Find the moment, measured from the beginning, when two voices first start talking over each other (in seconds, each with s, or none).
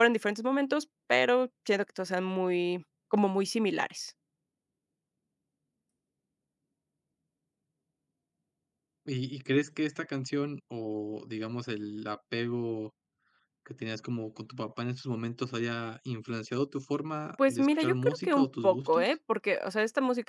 17.4 s